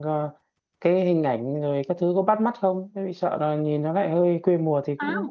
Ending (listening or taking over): taking over